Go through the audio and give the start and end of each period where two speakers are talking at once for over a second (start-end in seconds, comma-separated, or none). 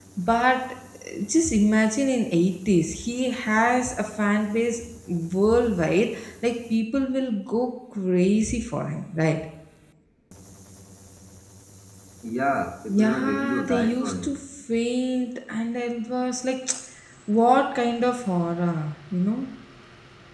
13.0-14.4